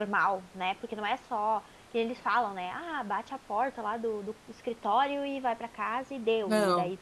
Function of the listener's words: listening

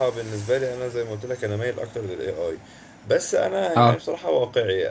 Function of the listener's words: listening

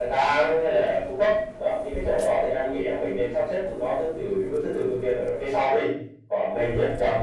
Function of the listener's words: listening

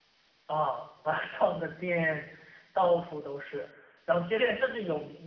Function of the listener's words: listening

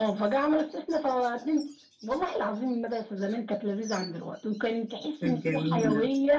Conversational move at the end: listening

